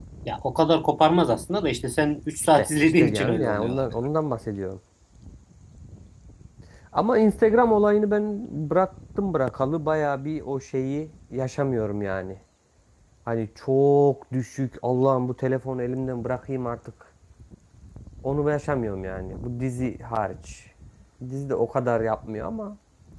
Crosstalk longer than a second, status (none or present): present